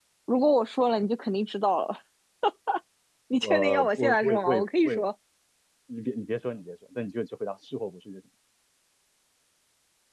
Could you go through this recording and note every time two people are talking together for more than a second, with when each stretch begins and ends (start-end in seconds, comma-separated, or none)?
3.4-4.9